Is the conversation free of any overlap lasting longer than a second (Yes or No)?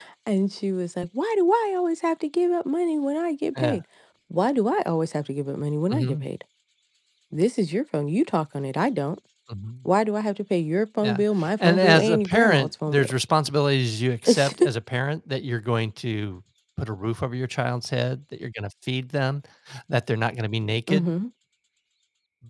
No